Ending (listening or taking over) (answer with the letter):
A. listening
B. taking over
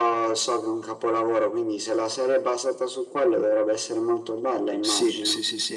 B